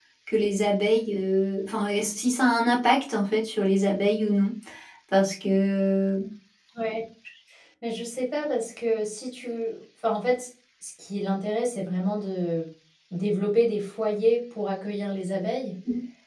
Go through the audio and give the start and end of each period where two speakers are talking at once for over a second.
none

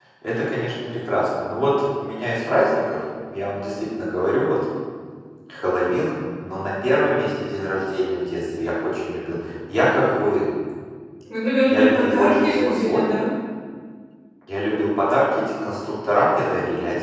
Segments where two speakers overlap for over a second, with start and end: 11.7-13.0

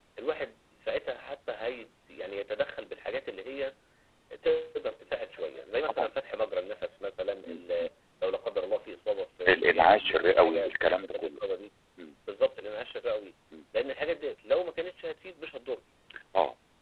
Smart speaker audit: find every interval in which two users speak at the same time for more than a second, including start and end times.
9.5-11.3

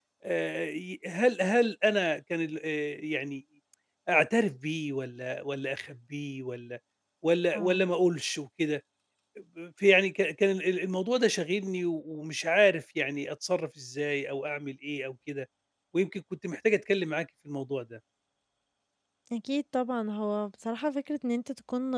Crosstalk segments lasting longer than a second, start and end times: none

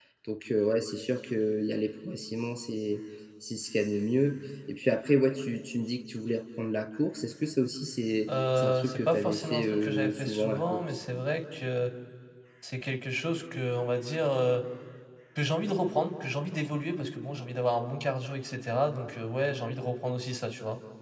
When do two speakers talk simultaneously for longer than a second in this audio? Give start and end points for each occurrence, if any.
8.3-10.8

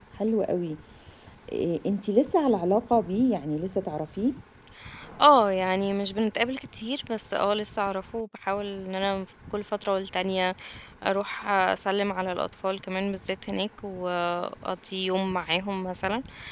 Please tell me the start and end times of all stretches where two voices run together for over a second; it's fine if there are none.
none

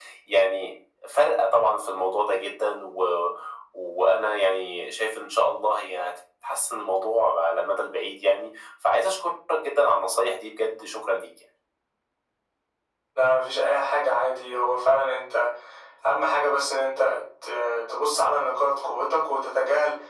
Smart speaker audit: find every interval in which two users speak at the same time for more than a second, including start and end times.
none

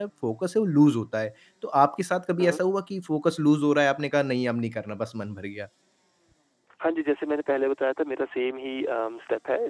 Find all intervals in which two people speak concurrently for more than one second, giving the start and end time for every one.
none

